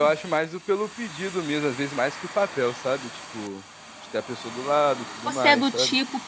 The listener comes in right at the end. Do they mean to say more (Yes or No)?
Yes